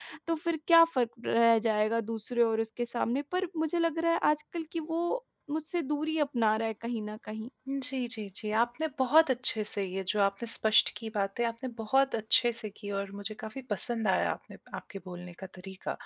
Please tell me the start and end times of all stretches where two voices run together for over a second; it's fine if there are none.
none

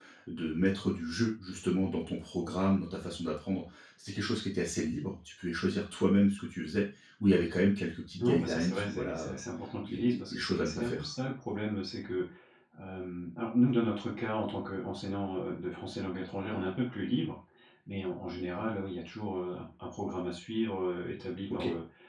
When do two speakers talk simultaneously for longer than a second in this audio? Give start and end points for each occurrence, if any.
8.1-9.3, 9.8-11.1

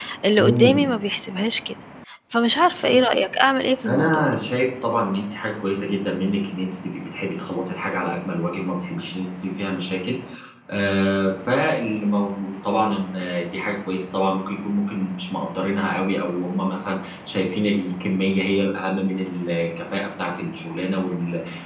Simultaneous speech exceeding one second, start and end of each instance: none

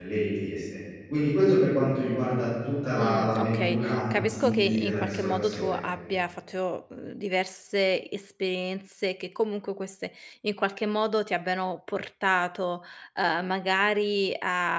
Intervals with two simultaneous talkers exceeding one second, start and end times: 3.0-5.8

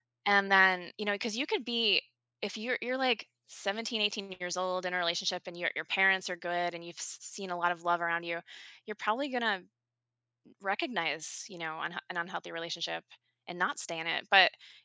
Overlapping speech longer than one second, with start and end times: none

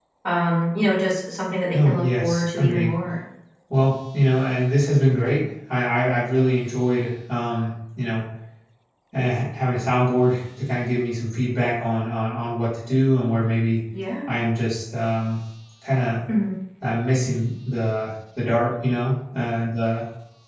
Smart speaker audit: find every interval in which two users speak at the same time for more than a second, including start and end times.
1.7-2.9

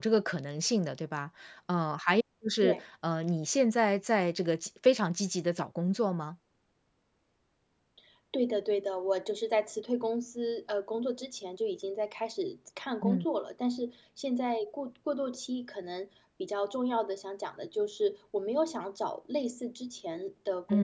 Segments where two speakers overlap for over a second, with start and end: none

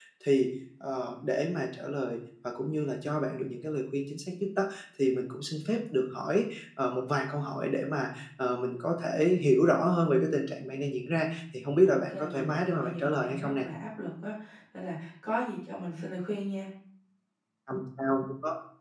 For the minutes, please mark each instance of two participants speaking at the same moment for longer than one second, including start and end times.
11.8-13.7

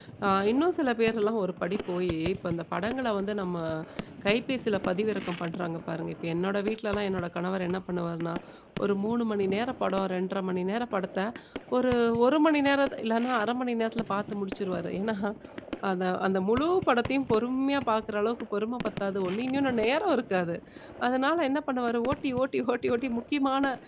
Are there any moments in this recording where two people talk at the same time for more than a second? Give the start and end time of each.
none

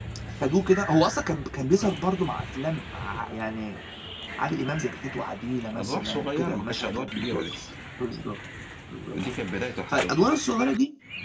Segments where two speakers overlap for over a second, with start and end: 5.7-7.4

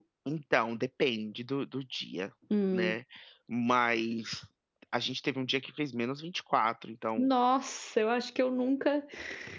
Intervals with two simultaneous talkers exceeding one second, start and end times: none

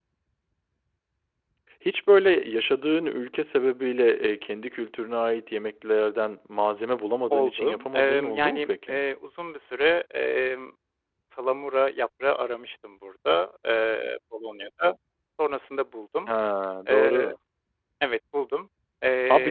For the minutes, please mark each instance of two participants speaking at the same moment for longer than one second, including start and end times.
7.3-8.9

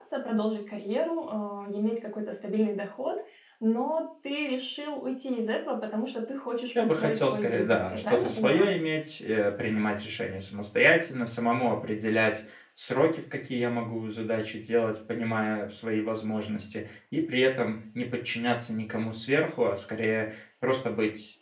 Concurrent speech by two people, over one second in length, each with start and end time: 6.8-8.7

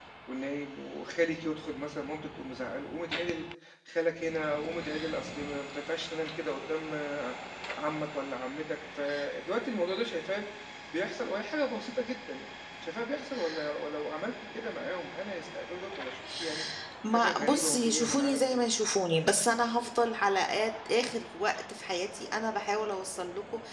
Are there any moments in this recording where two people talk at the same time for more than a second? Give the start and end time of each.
17.1-18.6

